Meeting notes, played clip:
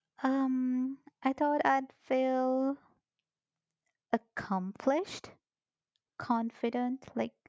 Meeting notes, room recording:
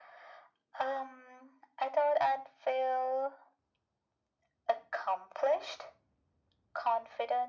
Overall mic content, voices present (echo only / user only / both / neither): echo only